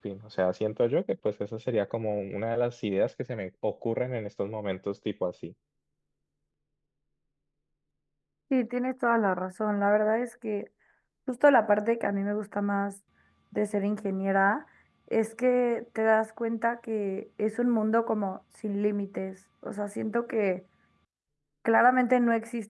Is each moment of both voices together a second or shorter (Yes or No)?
Yes